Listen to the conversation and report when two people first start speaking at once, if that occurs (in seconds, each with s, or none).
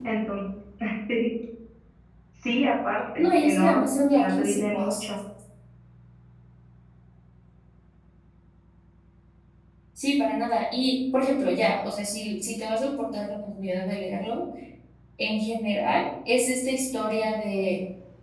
3.1 s